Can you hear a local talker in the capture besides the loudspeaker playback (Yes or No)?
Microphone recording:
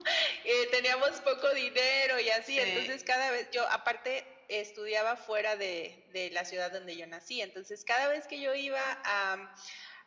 Yes